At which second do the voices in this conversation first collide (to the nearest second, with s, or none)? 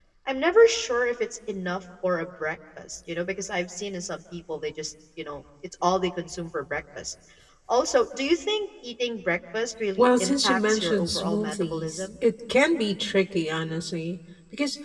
10 s